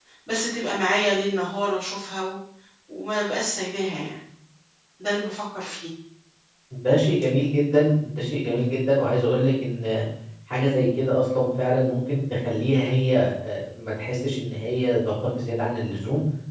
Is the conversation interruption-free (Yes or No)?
Yes